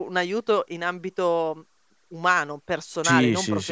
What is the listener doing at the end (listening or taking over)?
taking over